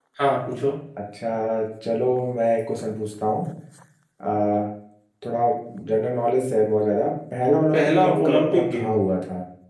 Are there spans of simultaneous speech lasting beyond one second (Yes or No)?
Yes